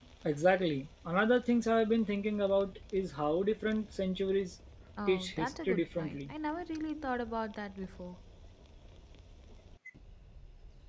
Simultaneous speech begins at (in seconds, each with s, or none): 5.1 s